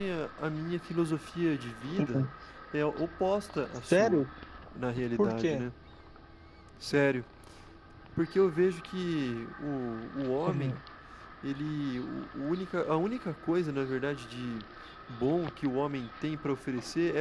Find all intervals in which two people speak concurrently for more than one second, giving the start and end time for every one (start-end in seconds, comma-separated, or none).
none